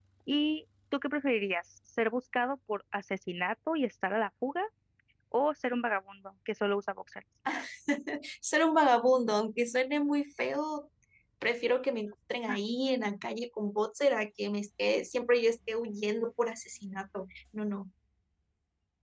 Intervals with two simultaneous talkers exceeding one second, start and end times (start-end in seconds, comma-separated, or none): none